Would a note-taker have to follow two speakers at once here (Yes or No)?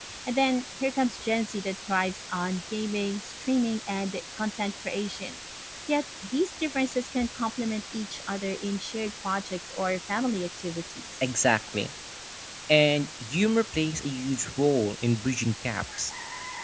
No